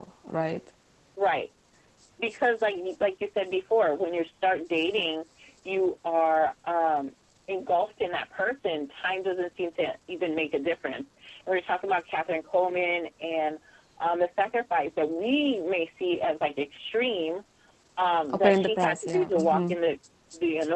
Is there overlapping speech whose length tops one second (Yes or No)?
Yes